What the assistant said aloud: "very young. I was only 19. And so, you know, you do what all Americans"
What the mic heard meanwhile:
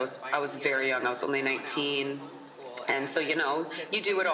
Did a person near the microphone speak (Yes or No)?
Yes